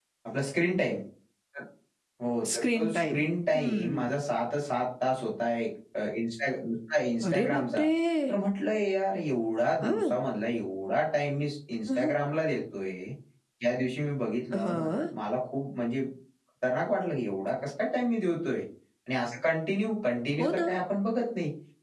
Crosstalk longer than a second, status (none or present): present